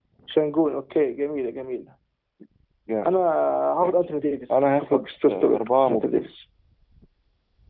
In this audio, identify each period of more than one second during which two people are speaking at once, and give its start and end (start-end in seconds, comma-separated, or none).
4.5-6.0